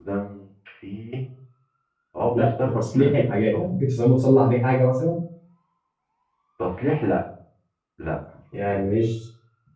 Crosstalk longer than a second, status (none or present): present